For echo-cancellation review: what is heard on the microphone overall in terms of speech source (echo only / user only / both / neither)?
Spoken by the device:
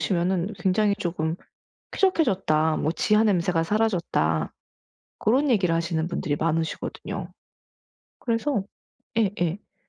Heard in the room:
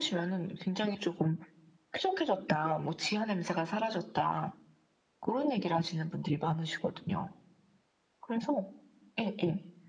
echo only